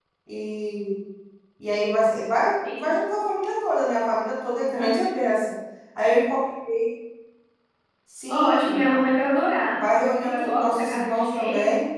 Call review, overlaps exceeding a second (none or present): present